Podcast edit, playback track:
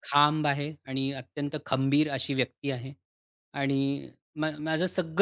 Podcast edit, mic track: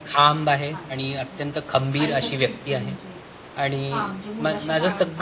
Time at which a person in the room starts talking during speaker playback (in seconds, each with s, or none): 0.7 s